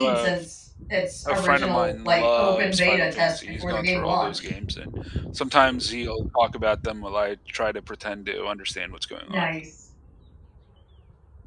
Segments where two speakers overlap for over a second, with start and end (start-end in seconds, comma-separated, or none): 1.2-4.4